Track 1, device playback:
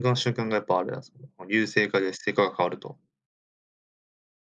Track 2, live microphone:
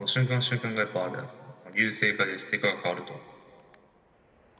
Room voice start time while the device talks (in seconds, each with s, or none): none